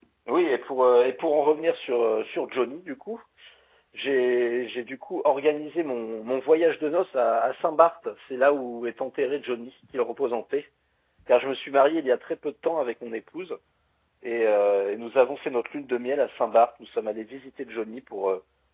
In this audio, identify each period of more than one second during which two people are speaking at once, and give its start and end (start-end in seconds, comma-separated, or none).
none